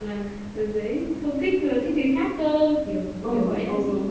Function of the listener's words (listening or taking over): taking over